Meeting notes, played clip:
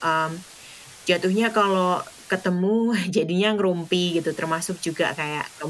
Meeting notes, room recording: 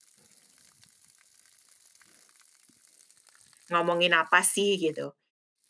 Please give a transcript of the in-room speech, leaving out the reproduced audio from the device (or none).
ngomongin apa sih, gitu.